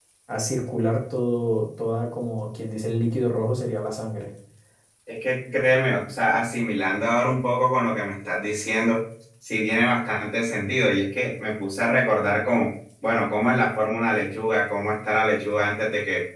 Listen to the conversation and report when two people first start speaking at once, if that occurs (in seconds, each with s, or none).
none